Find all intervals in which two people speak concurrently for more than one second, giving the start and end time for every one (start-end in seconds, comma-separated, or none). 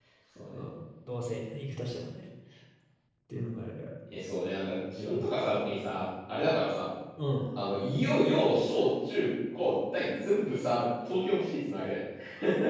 none